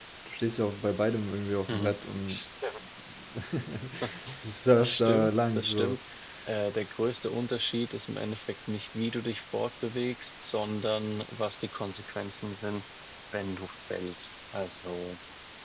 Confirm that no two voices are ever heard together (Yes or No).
No